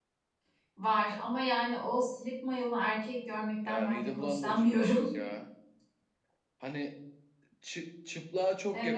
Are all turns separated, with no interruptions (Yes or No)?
No